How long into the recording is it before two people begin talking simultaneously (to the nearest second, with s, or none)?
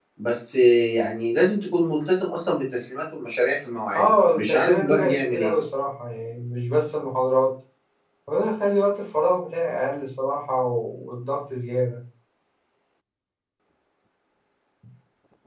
4 s